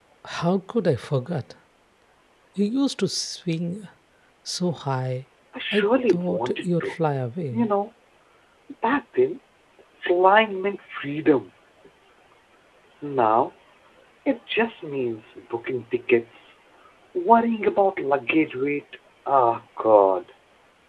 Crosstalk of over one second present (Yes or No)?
Yes